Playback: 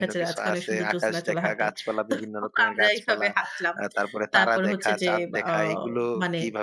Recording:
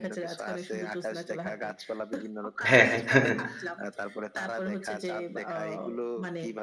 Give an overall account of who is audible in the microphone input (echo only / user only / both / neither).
both